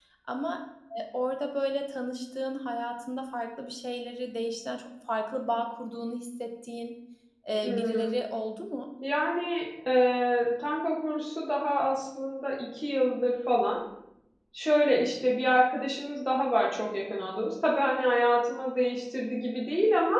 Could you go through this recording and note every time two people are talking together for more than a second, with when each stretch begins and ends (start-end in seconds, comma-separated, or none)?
none